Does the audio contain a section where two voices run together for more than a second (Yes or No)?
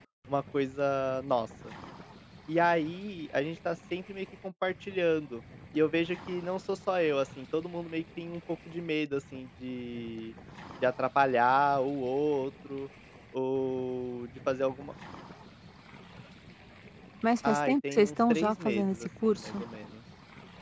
Yes